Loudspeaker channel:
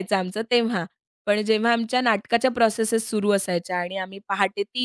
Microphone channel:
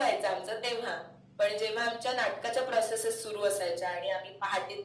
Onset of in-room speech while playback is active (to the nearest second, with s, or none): none